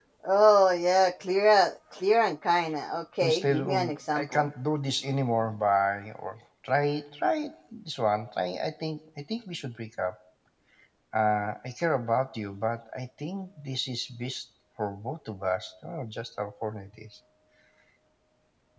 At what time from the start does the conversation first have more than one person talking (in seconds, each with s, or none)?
3.2 s